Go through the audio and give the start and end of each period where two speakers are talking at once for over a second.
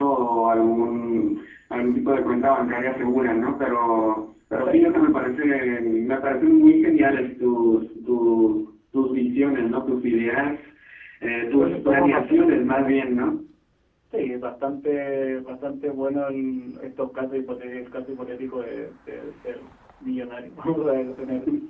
11.5-13.1

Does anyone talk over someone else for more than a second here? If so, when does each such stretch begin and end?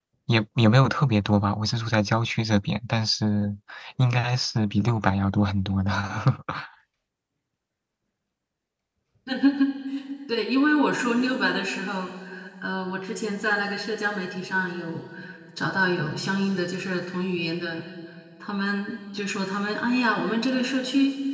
none

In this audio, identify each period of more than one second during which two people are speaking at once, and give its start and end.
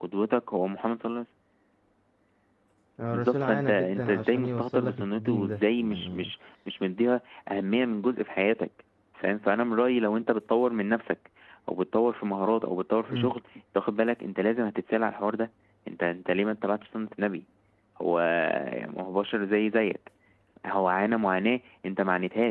3.1-6.3

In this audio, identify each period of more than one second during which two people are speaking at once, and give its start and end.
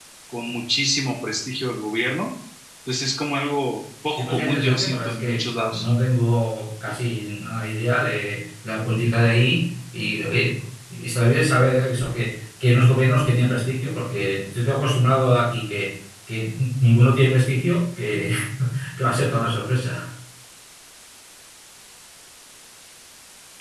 4.1-5.8

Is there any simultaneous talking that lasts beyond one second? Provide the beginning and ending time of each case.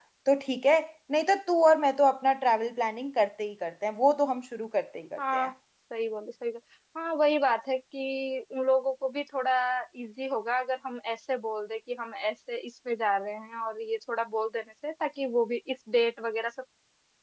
none

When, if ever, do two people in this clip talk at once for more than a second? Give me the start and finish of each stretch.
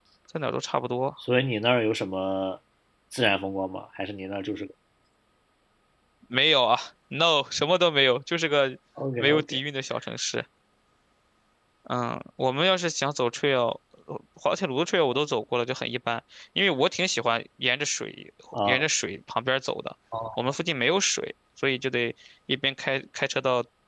none

